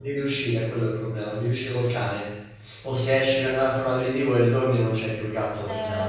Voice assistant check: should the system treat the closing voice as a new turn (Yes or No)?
Yes